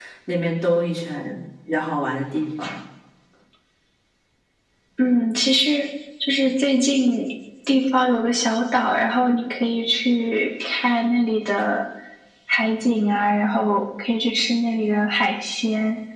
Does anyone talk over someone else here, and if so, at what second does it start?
none

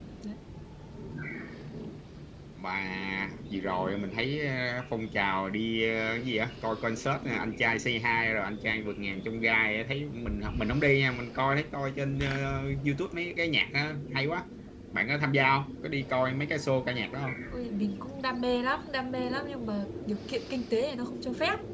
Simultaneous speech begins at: none

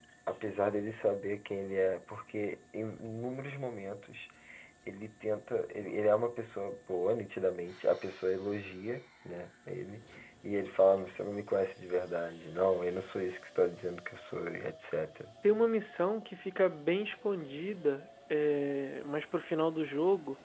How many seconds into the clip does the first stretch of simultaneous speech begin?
none

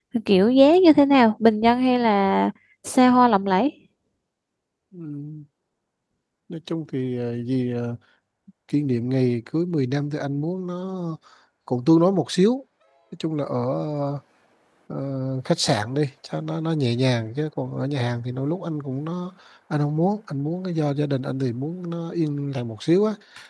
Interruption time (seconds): none

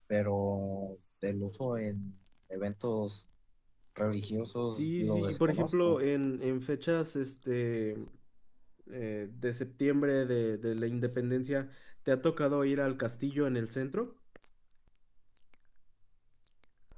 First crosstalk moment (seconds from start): 4.7 s

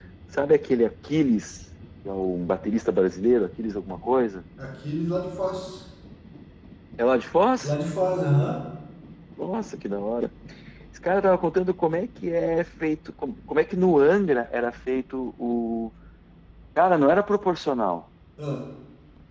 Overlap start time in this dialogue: none

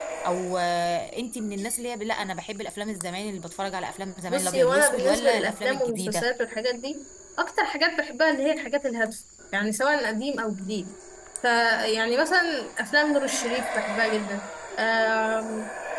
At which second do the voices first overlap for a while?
4.3 s

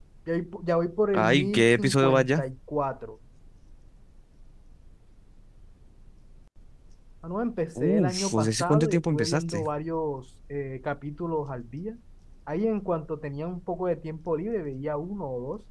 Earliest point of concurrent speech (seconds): 1.1 s

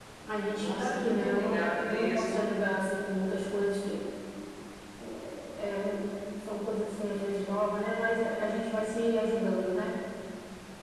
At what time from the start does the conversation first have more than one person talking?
0.5 s

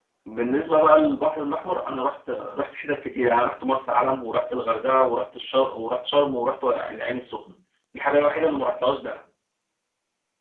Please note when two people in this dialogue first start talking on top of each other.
none

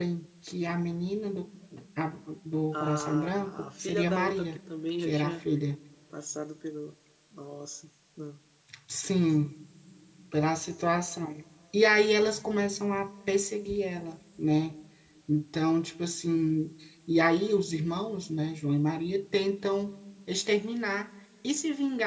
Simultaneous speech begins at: 2.7 s

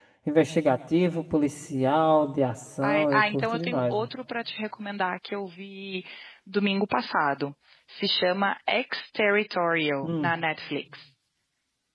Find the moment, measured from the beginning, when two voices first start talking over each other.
2.8 s

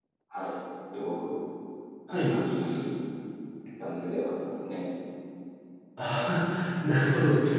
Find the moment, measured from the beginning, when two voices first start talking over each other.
none

